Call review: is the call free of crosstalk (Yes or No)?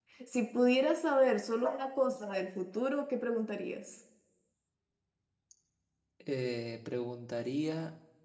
Yes